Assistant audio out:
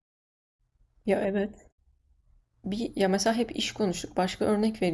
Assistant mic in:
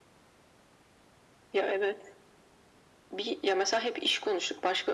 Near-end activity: none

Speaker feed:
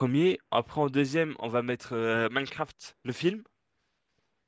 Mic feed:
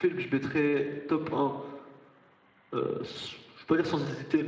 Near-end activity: present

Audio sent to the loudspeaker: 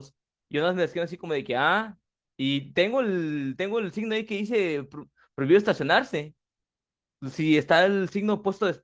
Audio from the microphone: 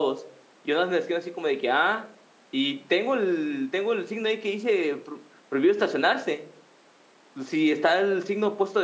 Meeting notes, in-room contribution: none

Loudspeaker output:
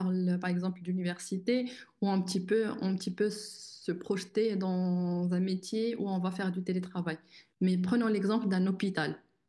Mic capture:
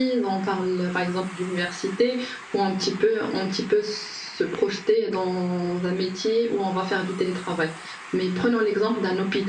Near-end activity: none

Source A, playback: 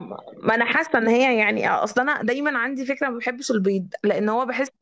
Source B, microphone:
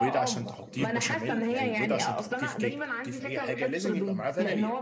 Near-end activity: present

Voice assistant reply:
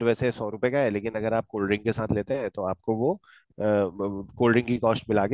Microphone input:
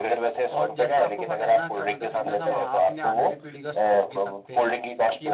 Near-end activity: present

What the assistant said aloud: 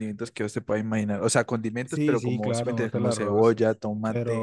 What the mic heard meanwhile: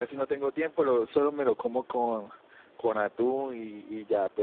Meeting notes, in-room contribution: present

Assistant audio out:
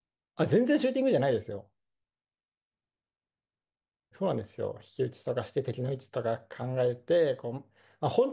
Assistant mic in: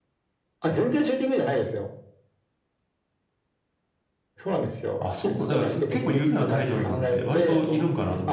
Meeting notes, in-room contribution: present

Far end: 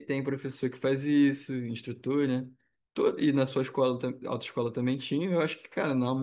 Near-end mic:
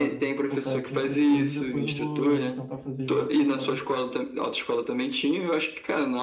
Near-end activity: present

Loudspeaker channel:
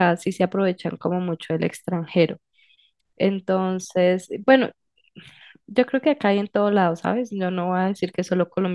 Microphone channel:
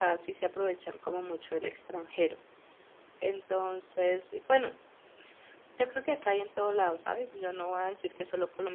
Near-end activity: none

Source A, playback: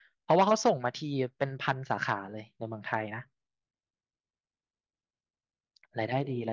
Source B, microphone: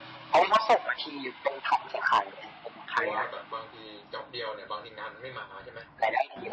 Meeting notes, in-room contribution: present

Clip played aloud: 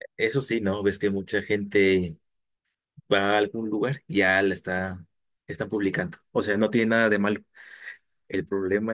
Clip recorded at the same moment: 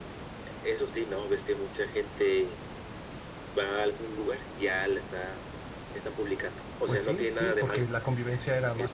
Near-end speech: present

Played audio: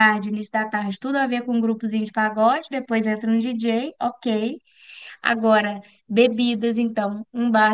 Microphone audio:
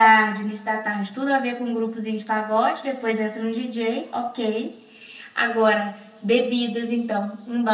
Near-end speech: none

